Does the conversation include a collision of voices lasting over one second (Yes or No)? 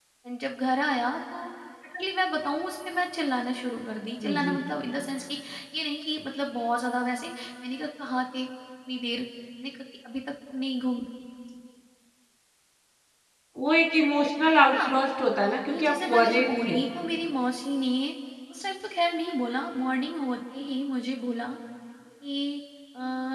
Yes